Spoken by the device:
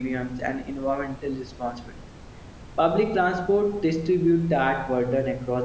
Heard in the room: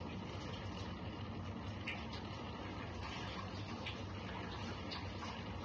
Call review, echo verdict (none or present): none